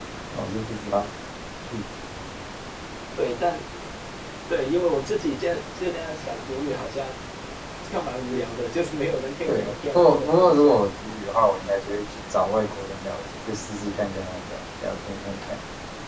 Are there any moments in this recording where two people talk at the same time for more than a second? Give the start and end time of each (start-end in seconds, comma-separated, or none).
9.5-10.7